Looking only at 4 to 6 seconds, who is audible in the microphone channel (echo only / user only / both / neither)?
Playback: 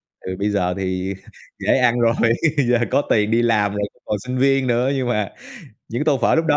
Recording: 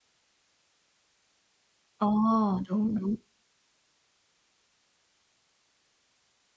neither